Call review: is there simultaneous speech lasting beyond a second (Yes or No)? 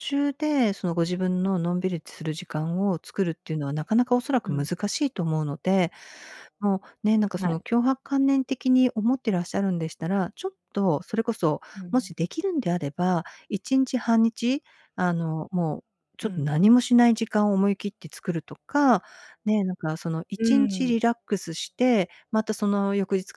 No